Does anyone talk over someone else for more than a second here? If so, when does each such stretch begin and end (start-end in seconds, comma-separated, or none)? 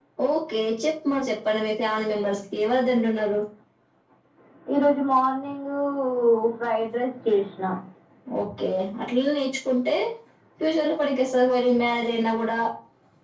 none